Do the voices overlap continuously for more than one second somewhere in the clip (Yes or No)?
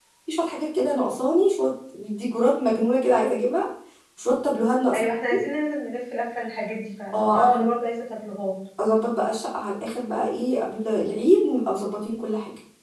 No